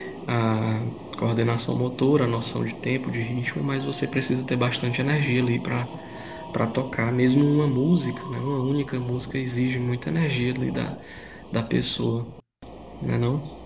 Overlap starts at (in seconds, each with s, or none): none